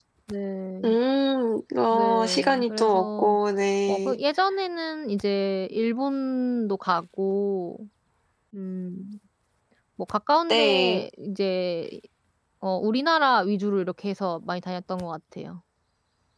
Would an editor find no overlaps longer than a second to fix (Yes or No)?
No